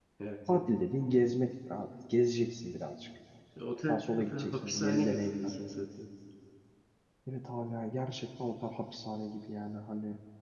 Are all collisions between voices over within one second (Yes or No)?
No